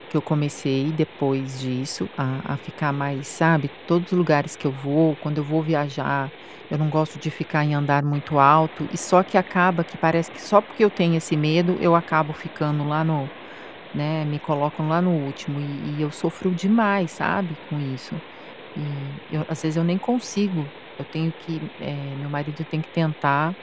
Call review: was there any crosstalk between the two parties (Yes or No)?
No